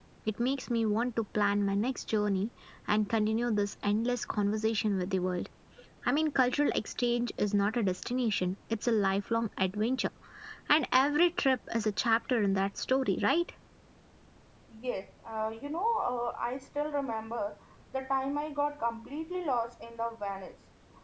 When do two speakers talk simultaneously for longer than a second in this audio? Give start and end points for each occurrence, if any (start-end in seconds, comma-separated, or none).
none